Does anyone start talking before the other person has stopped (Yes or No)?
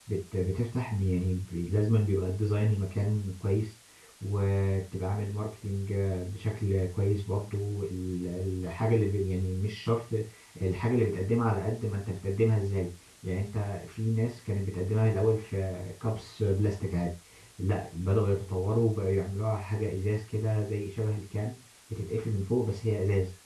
No